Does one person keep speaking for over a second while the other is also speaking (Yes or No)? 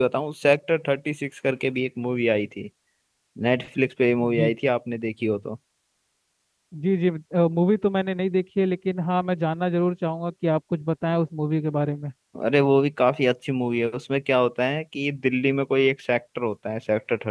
No